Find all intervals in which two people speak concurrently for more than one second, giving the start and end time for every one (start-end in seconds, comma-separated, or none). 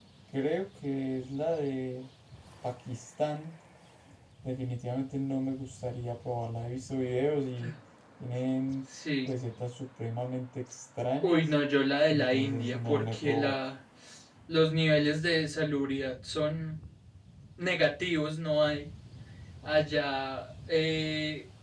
12.1-13.6